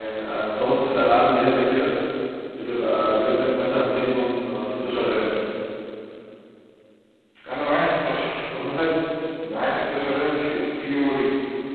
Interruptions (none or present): none